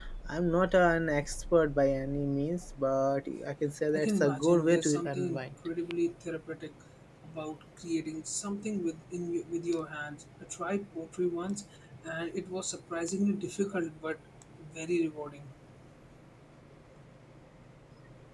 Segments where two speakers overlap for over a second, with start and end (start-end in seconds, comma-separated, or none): 3.9-5.5